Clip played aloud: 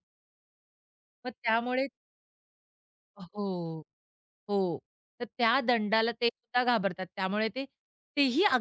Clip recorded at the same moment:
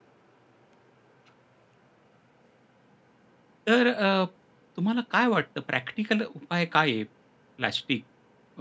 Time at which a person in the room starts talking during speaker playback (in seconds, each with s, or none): 3.7 s